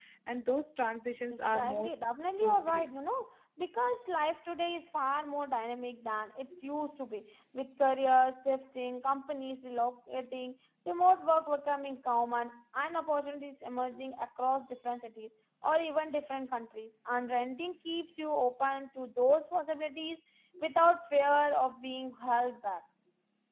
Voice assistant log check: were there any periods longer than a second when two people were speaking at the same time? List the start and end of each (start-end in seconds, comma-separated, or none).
1.3-2.9